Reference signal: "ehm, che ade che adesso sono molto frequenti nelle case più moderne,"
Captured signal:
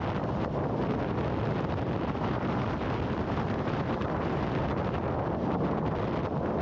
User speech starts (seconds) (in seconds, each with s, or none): none